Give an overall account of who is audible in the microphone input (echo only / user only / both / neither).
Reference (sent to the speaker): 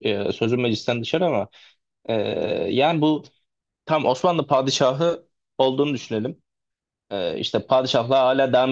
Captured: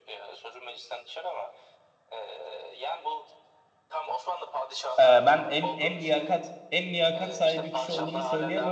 both